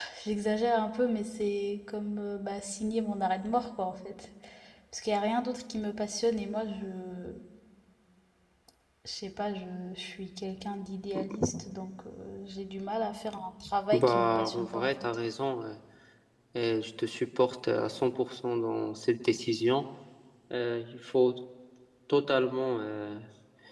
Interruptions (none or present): present